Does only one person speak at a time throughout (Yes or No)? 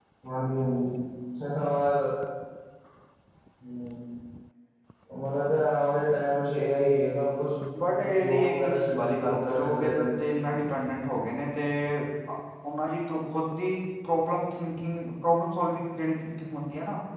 No